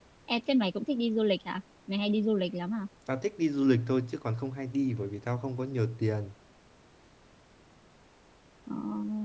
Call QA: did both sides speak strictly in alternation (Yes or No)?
Yes